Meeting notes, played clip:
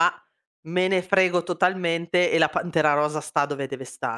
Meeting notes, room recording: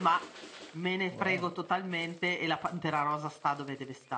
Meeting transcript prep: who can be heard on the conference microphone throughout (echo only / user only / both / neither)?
both